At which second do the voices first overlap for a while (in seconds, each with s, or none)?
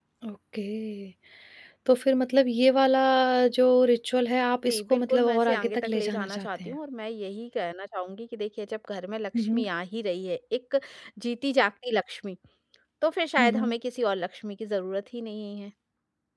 4.7 s